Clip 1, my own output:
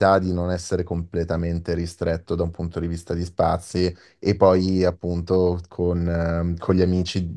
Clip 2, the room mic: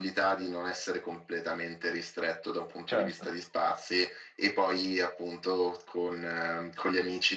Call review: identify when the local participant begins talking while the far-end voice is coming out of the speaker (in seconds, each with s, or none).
2.9 s